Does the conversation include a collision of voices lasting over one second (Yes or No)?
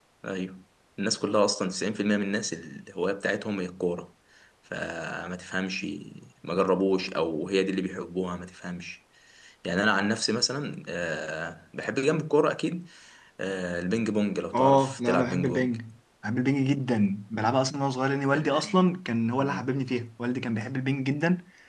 Yes